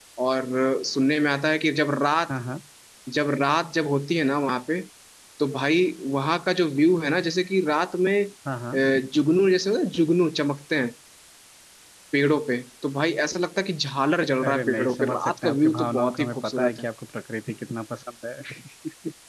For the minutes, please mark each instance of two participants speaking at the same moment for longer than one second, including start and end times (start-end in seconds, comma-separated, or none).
14.4-16.9